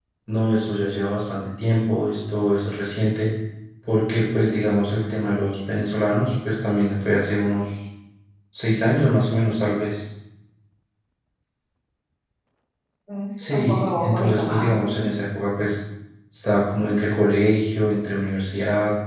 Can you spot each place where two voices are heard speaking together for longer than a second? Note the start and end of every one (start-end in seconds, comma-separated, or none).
13.4-15.1